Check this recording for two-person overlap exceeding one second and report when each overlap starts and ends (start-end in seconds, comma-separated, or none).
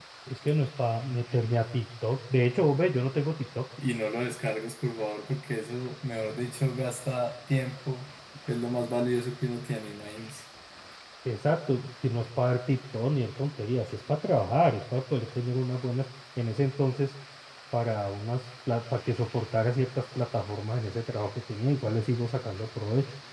none